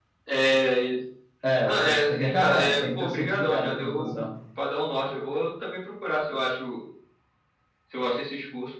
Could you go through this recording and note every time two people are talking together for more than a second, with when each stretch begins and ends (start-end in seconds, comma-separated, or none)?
1.6-4.2